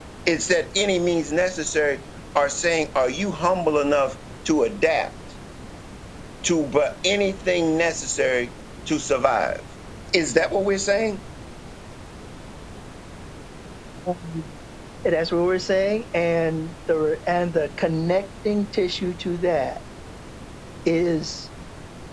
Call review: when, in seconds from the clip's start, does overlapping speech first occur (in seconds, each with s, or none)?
none